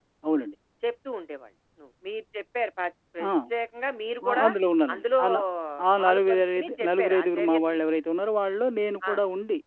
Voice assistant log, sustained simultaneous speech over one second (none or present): present